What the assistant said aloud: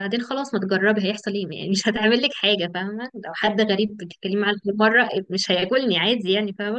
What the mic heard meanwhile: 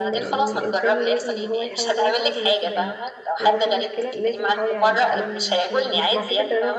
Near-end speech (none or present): present